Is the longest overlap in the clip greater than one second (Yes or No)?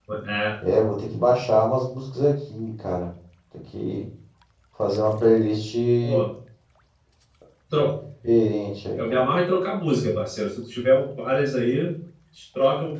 No